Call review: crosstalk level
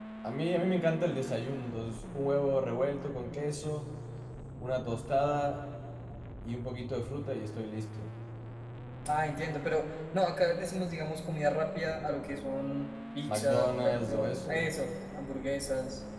present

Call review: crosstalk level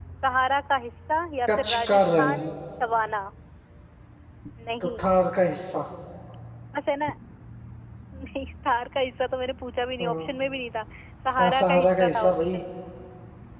present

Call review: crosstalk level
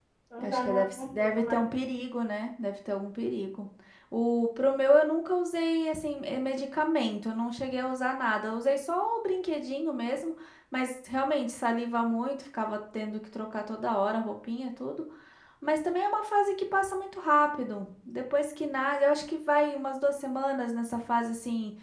present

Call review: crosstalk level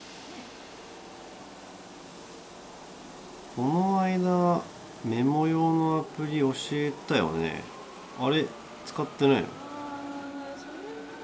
none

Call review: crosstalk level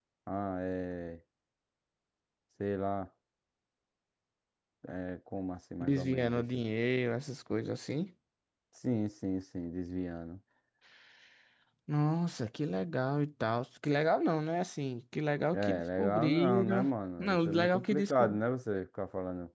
present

